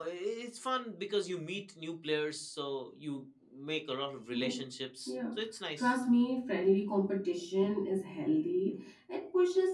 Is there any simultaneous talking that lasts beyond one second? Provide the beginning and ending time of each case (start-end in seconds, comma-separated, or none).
none